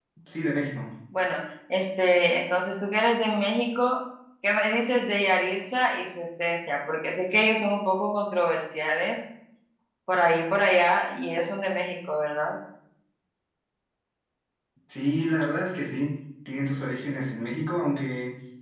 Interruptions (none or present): none